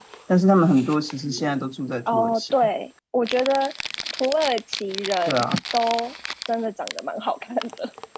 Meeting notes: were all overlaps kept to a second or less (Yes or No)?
Yes